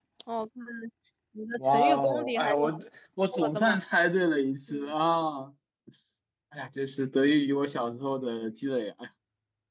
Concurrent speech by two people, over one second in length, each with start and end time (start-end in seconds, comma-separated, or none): 1.6-2.8